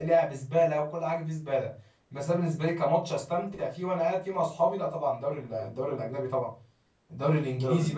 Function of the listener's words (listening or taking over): listening